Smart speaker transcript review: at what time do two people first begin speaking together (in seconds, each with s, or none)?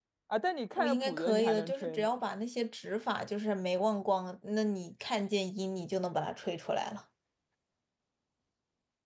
0.8 s